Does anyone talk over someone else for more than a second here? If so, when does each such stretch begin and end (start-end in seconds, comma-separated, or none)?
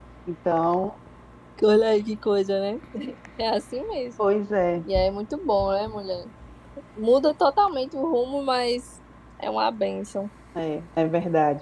none